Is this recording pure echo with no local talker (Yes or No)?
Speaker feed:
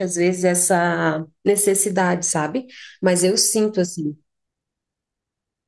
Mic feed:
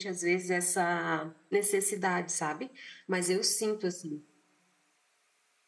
Yes